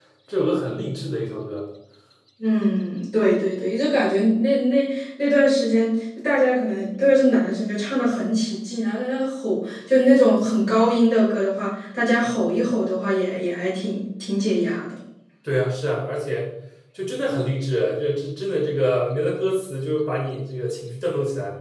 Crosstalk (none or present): none